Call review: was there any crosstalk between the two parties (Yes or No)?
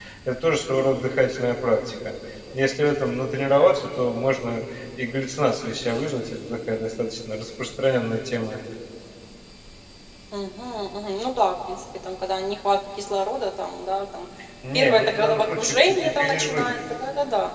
Yes